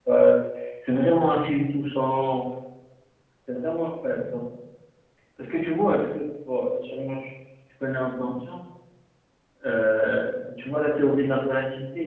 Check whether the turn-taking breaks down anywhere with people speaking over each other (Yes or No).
No